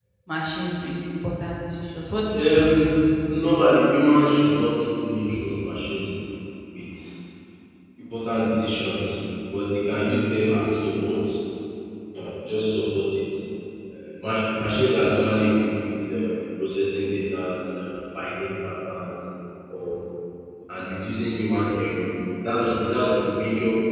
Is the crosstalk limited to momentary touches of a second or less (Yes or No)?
Yes